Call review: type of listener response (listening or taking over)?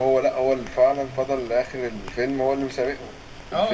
taking over